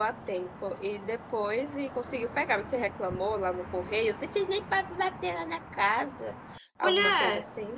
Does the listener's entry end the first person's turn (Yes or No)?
Yes